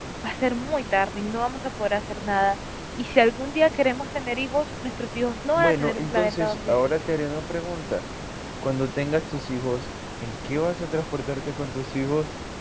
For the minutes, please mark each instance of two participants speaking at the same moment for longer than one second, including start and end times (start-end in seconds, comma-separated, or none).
5.5-6.9